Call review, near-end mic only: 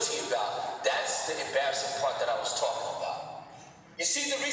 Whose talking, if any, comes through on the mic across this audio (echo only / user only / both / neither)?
echo only